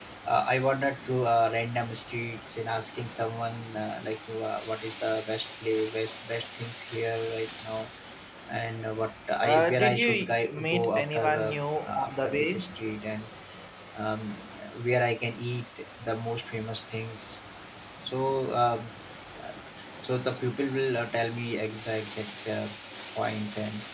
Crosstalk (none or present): present